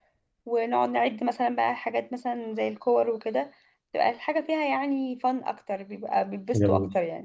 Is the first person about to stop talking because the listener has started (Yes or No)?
Yes